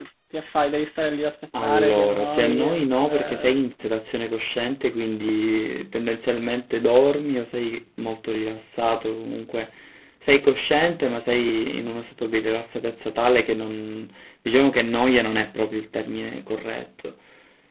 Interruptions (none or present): present